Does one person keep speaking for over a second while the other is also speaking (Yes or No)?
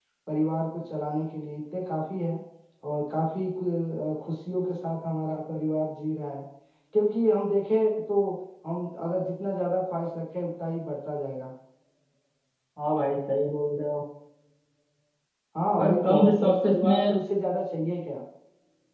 Yes